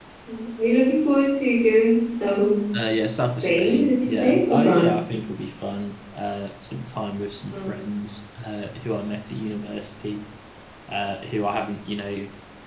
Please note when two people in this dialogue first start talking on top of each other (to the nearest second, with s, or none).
3 s